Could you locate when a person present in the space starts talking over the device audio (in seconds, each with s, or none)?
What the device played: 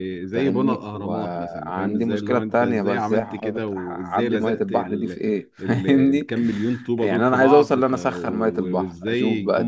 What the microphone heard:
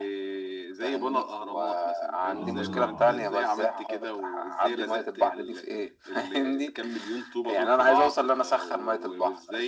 2.3 s